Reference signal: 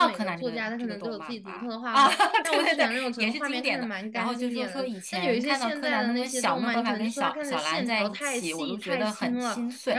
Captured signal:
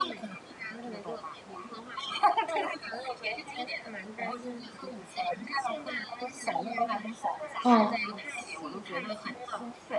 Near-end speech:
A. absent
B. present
B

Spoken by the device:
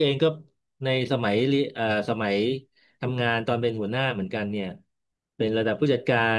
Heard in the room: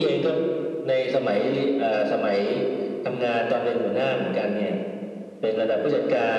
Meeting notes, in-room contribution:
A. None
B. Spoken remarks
A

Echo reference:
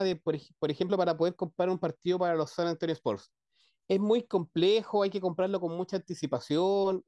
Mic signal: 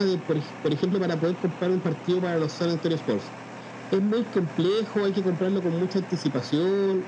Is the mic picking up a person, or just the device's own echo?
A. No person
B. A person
A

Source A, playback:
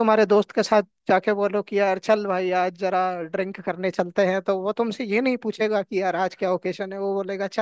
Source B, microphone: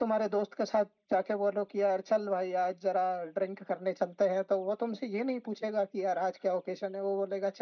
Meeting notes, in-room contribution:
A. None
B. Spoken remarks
A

